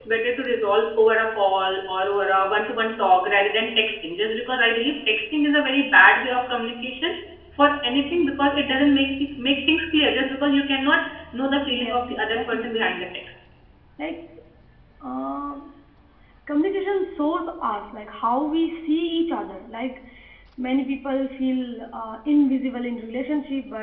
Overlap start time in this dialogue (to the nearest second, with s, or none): 12 s